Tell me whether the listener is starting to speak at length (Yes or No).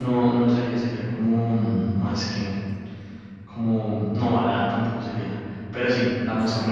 No